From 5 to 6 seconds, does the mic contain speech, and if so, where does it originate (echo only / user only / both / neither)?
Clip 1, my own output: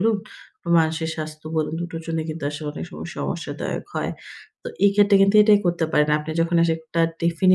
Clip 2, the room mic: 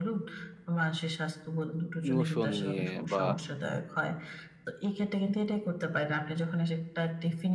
echo only